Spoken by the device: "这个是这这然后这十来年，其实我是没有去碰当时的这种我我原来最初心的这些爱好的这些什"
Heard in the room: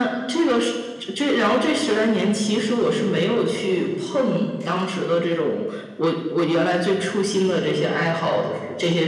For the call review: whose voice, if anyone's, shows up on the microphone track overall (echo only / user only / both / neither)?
echo only